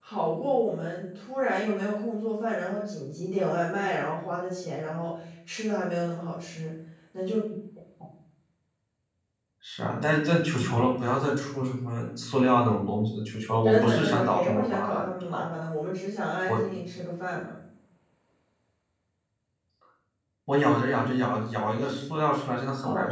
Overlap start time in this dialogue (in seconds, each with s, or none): 13.6 s